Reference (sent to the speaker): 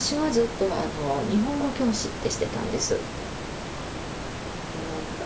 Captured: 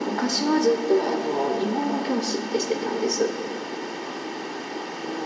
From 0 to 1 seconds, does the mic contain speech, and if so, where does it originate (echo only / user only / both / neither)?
echo only